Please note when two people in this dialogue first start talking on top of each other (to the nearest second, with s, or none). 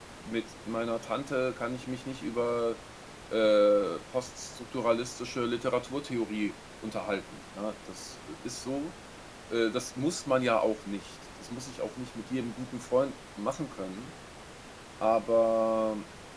none